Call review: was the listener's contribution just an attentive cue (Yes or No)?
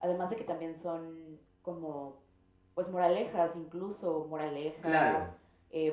Yes